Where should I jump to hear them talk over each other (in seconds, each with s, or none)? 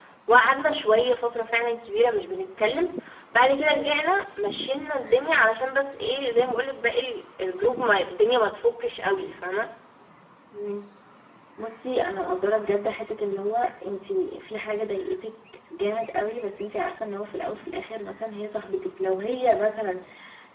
none